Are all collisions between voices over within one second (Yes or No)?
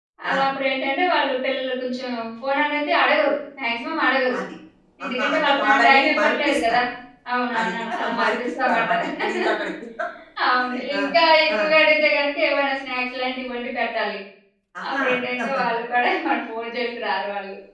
No